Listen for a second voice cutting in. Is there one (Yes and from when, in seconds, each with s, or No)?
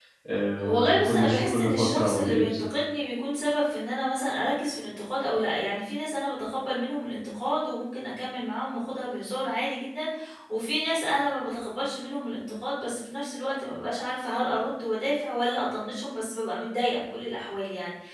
Yes, from 0.6 s